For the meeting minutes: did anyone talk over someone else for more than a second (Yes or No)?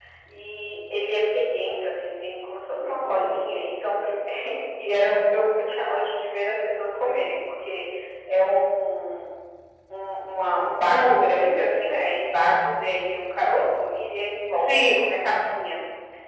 No